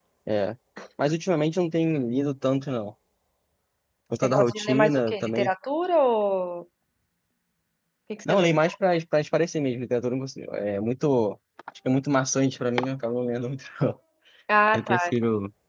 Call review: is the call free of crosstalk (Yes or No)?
No